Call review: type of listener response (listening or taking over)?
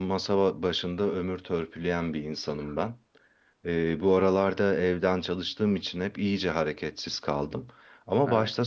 listening